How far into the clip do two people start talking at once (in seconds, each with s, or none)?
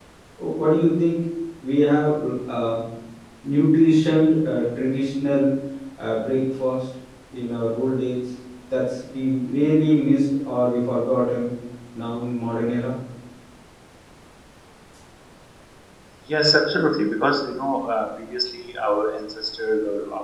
none